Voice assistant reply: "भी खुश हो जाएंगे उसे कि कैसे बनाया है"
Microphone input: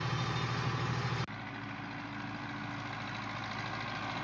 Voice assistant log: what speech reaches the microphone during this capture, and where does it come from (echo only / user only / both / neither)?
neither